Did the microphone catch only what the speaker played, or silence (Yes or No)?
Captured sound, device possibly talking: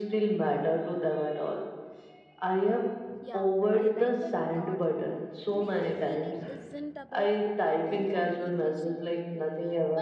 No